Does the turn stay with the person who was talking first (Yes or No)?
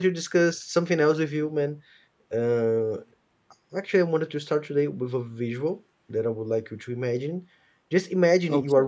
Yes